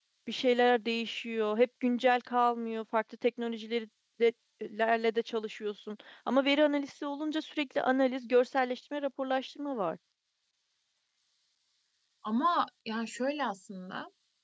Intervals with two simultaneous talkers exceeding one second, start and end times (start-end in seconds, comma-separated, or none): none